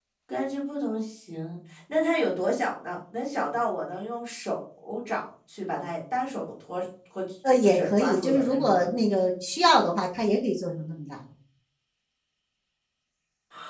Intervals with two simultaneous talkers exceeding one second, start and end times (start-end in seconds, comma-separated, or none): 7.6-8.8